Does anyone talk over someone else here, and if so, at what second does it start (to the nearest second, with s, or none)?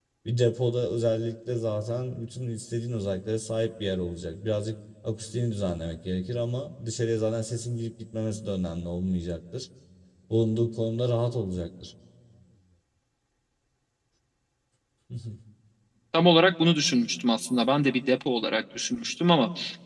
none